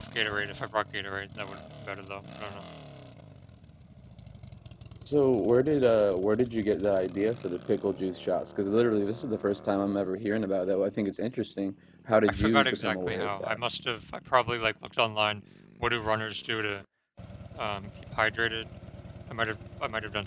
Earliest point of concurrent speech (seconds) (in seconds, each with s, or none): 12.2 s